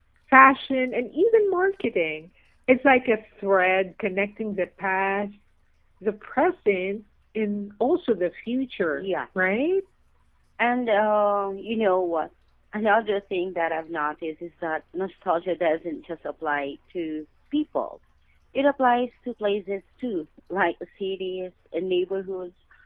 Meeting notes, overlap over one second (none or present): none